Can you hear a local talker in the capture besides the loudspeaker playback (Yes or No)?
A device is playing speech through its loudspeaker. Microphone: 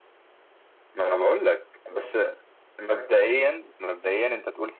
No